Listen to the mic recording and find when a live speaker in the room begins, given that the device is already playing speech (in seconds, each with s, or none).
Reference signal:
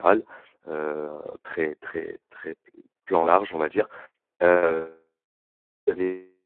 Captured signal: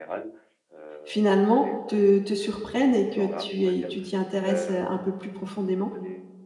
1.0 s